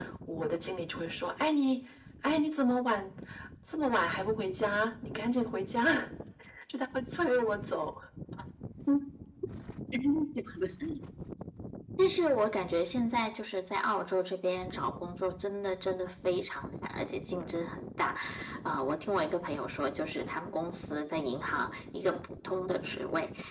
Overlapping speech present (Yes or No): No